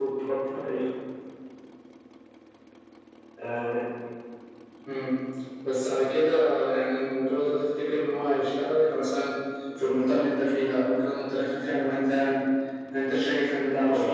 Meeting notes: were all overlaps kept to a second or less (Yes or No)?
Yes